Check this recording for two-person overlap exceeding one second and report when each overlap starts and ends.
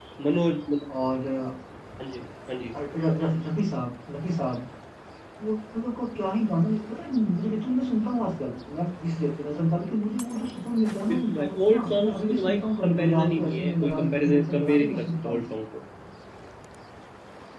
11.1-15.4

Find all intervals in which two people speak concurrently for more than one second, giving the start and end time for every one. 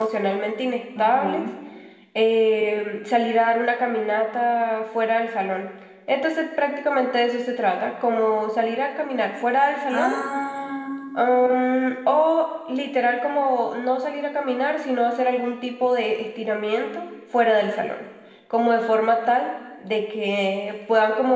none

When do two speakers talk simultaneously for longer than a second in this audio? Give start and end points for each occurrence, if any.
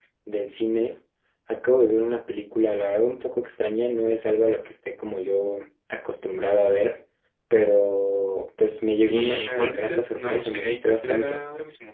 9.0-11.4

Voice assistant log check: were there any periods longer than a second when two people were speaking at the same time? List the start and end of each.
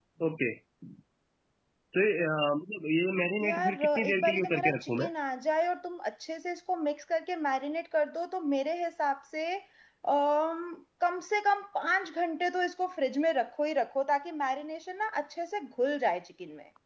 3.4-5.1

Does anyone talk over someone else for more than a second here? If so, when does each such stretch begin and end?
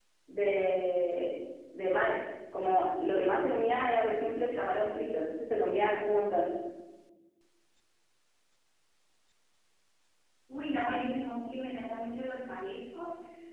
none

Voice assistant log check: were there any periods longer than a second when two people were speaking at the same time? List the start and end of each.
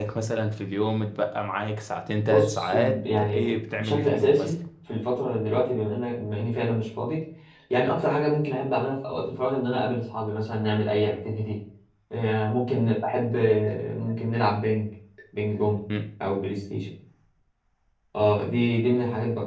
2.2-4.5

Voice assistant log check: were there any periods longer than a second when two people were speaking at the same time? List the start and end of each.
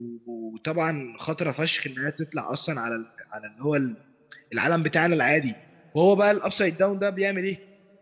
none

